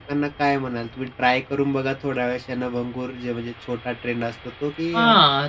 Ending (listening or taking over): taking over